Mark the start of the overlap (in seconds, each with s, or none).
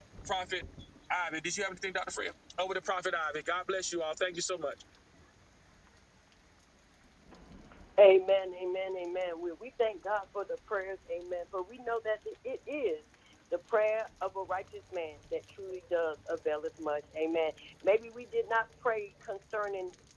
none